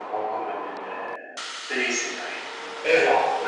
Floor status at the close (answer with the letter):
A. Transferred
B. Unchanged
A